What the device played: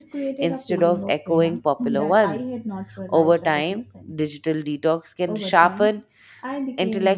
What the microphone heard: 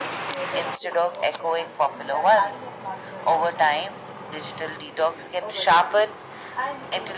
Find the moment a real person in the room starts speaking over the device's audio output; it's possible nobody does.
none

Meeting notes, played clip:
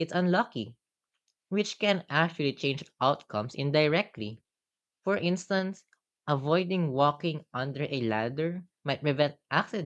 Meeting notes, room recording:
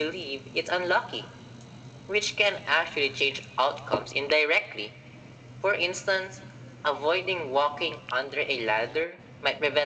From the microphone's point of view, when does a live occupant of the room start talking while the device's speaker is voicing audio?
none

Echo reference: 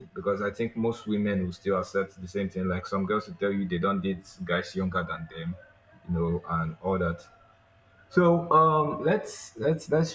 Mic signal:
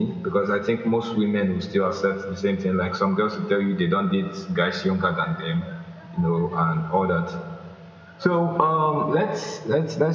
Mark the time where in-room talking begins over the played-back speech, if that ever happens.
none

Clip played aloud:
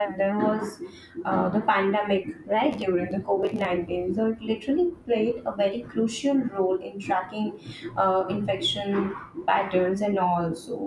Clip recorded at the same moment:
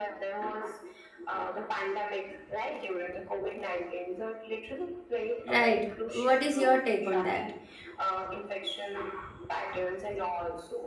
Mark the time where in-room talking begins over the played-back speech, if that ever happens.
5.5 s

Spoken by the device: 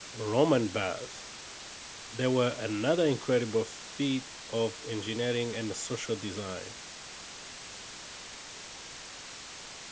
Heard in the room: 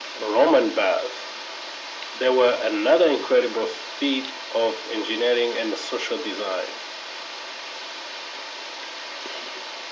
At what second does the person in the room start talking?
none

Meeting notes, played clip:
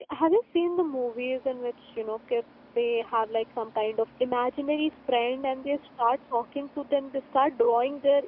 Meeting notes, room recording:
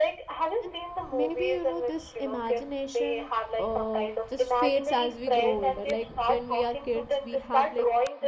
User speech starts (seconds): 0.6 s

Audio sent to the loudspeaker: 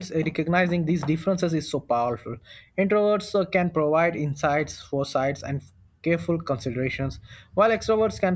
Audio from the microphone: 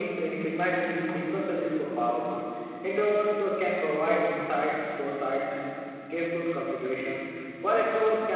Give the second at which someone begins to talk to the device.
none

